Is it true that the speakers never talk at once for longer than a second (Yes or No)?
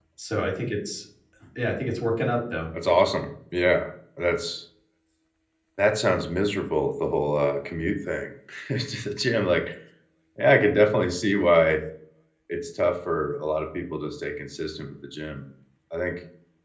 Yes